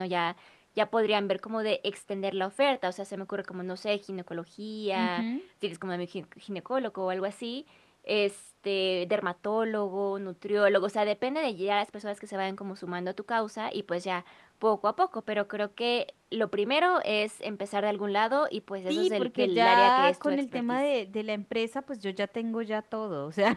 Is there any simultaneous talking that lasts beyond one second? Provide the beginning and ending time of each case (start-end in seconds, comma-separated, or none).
18.9-20.8